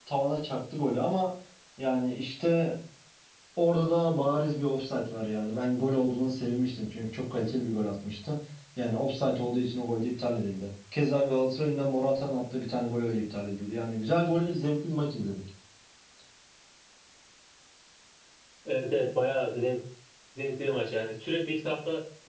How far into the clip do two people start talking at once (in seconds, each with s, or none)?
none